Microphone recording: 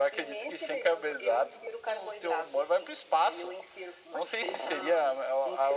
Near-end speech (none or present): none